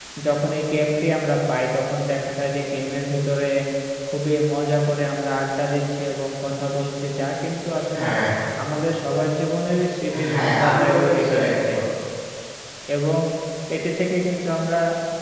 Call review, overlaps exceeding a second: present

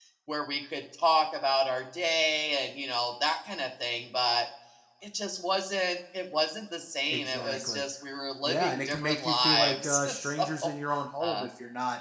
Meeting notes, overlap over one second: present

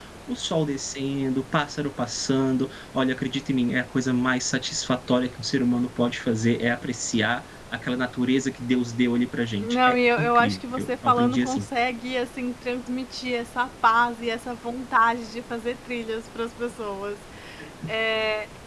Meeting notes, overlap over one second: present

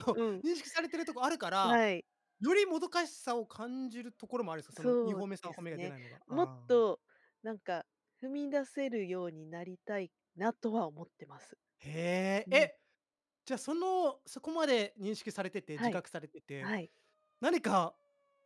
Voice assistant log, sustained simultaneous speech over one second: present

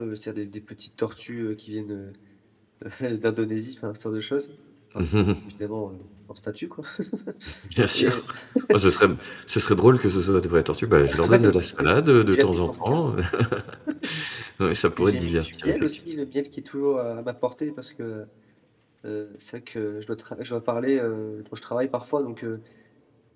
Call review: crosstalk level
present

